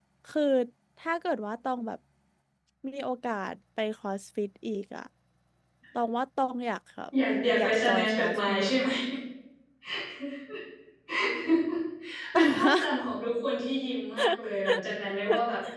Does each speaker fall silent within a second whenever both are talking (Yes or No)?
No